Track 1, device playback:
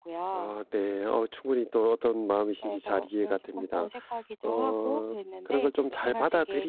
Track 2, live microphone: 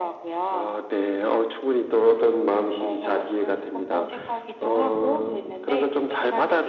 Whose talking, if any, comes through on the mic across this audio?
echo only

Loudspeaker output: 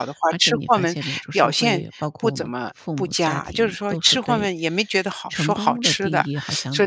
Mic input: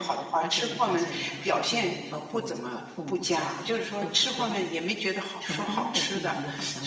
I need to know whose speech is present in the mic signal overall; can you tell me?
both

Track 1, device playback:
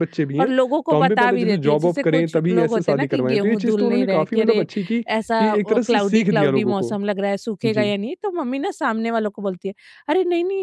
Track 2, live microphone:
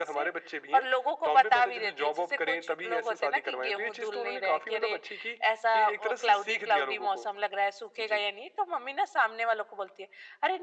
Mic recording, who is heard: echo only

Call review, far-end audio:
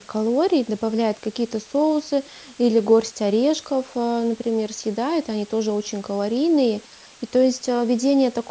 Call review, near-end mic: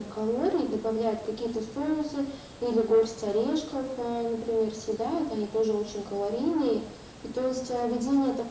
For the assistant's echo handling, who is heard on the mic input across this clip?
echo only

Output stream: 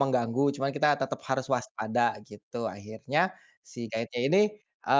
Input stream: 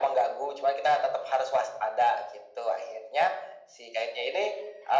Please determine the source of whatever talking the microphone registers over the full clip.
echo only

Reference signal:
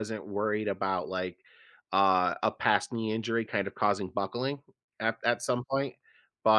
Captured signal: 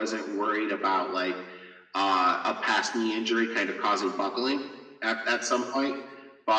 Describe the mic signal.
echo only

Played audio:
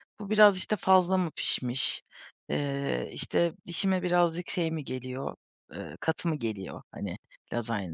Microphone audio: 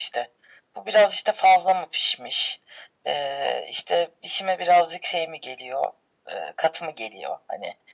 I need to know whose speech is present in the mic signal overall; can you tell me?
echo only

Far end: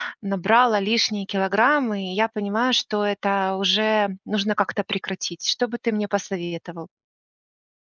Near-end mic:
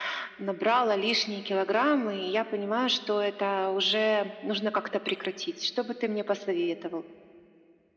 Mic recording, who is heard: echo only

